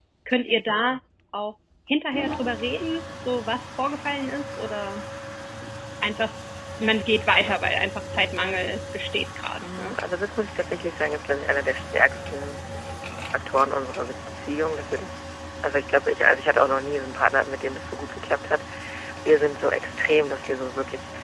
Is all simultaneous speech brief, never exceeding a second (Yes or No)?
Yes